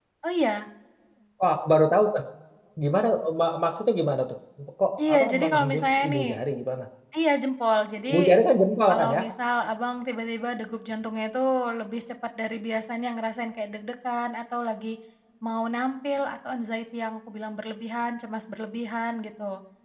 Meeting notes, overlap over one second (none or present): present